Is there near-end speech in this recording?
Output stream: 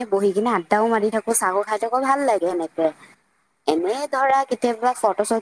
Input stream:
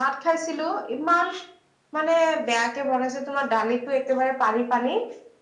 Yes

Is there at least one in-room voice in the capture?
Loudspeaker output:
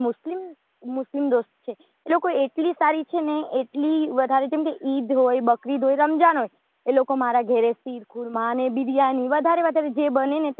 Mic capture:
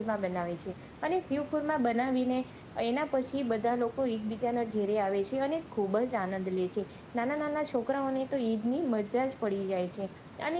Yes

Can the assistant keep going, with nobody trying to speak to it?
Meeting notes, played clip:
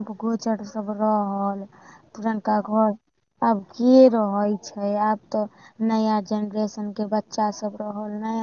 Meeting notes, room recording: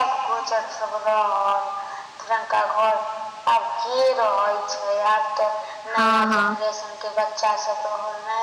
No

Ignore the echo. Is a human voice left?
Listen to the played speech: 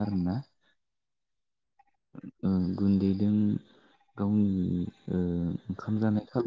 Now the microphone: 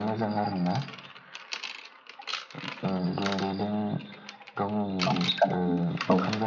Yes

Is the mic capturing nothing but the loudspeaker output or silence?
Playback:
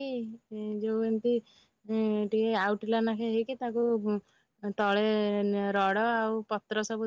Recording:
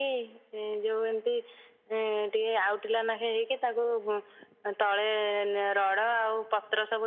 Yes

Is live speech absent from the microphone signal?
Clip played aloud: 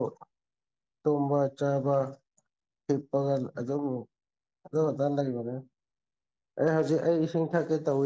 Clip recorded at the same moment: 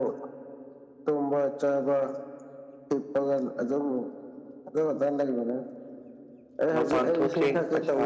No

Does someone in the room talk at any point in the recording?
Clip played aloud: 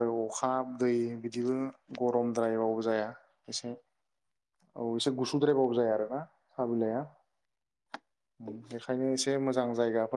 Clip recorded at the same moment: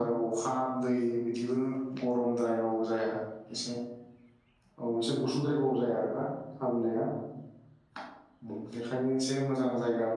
No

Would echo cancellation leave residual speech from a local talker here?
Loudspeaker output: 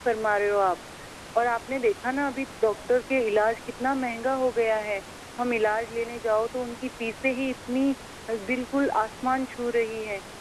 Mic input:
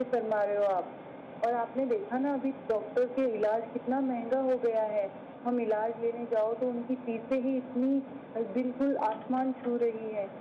No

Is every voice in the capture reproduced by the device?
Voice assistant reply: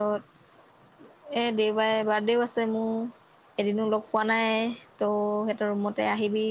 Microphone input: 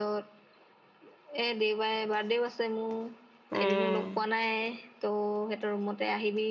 No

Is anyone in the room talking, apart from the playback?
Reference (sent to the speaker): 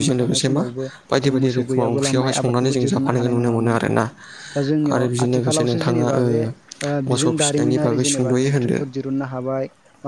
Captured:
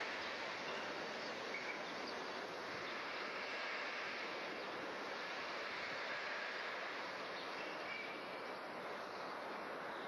No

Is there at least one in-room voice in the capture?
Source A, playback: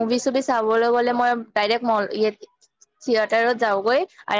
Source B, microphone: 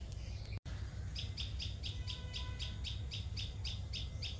No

